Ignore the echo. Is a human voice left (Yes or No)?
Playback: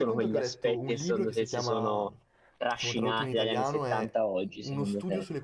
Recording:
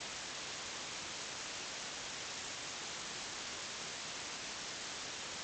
No